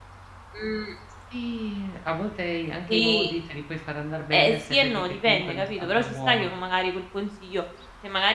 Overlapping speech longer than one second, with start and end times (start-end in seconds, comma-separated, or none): 4.3-6.5